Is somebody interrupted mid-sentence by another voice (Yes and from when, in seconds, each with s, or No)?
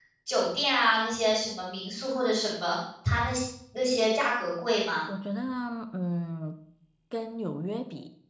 No